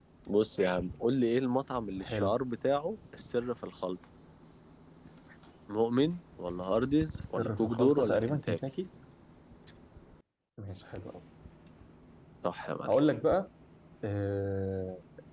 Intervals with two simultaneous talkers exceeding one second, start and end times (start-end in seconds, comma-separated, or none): 7.3-8.6